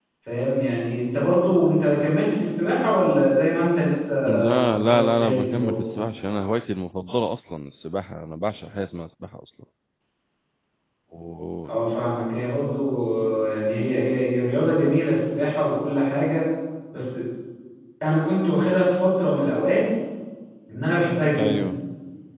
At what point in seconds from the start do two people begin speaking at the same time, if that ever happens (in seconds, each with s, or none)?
4.6 s